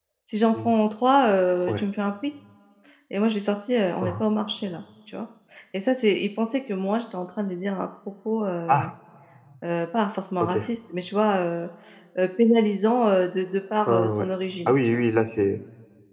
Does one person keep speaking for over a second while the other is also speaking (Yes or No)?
No